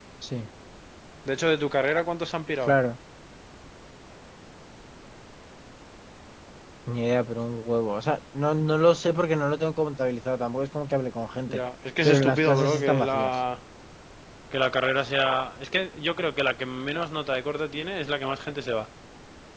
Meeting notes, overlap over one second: present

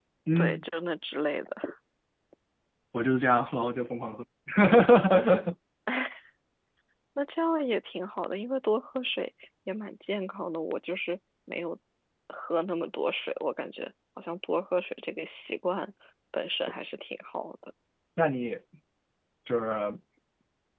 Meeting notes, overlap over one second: none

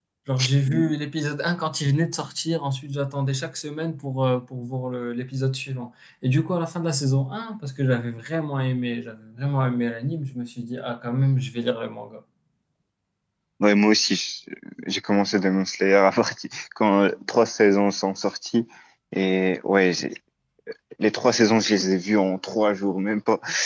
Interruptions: none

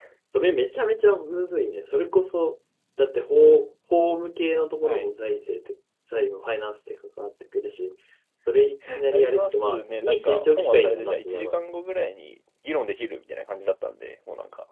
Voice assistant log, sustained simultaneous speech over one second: present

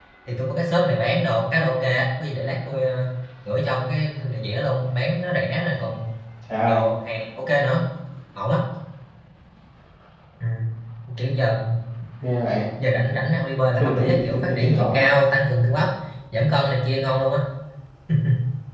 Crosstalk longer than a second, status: present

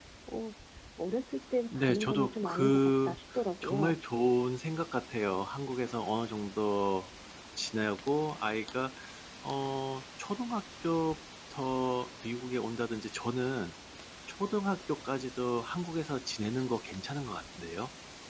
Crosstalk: present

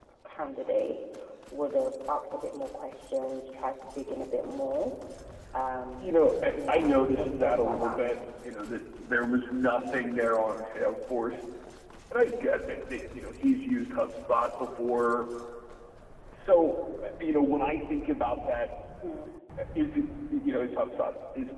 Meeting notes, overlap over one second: present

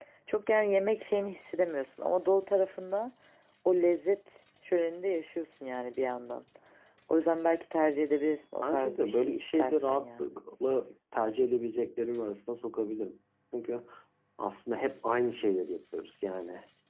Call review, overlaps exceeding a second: present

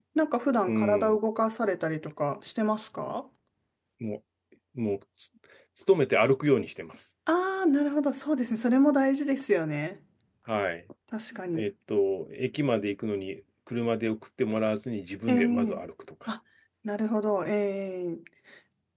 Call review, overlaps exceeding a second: none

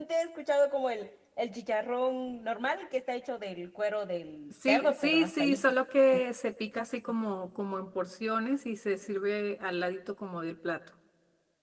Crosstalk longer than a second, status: present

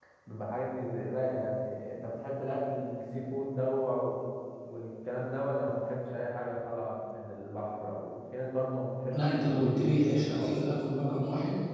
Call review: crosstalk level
present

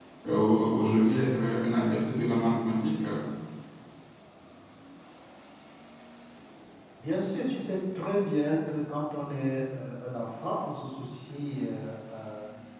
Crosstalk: none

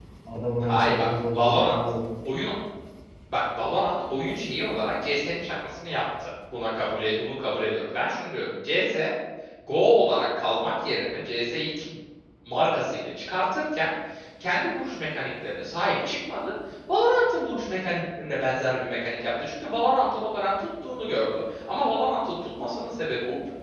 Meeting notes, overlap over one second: present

